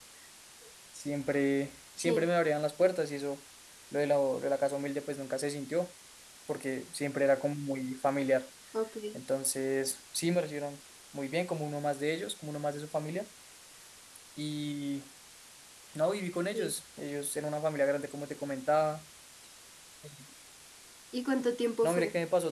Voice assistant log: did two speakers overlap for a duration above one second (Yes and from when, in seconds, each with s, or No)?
No